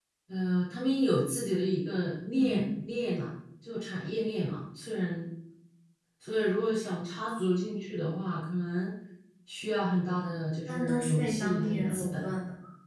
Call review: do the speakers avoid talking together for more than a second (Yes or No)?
No